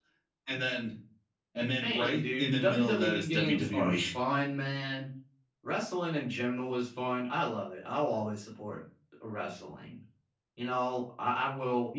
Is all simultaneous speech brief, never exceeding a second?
No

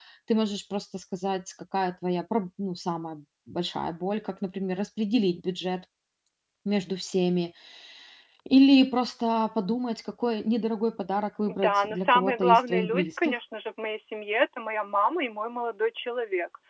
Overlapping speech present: Yes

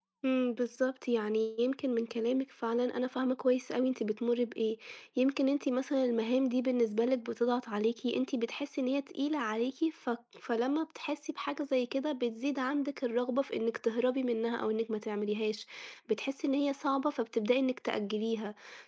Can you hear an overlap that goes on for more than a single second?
No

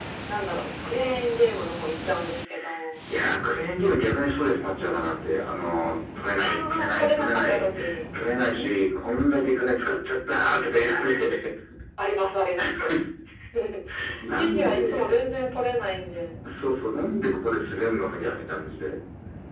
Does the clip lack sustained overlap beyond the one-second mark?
No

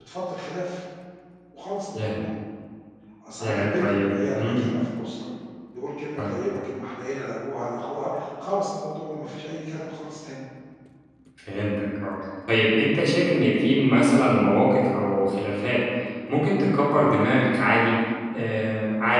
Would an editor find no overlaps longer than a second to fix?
No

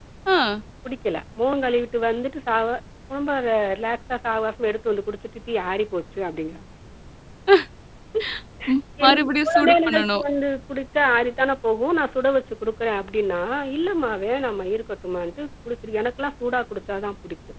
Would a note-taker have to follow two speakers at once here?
Yes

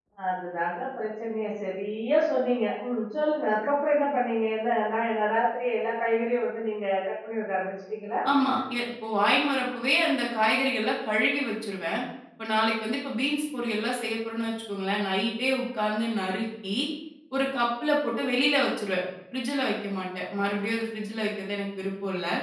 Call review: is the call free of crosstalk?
Yes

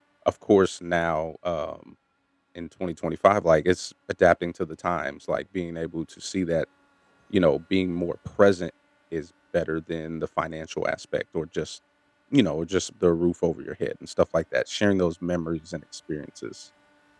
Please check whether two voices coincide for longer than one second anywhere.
No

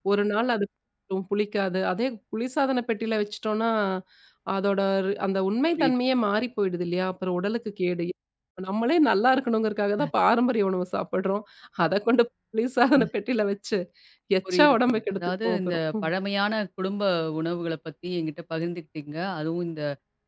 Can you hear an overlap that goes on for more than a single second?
Yes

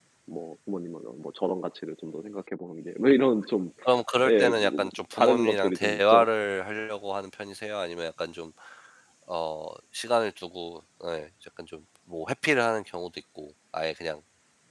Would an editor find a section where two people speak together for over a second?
Yes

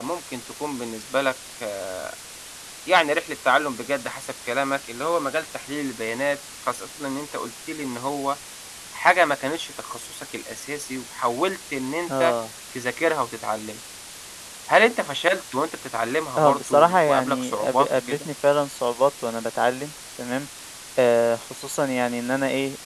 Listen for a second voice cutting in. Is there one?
Yes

